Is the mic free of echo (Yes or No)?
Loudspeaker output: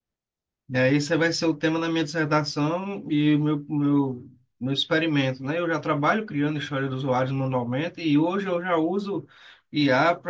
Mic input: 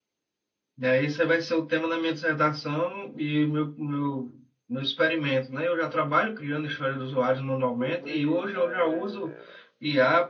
No